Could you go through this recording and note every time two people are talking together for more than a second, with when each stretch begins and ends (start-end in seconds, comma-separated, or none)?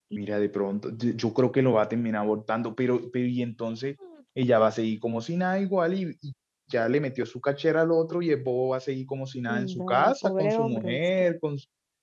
9.5-11.0